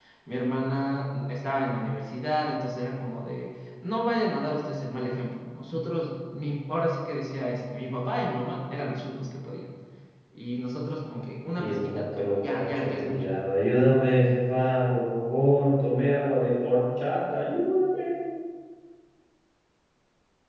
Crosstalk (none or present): present